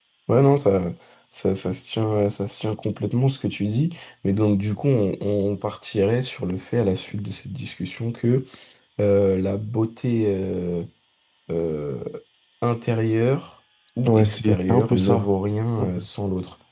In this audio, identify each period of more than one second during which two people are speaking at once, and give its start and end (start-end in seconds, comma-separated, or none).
14.1-15.3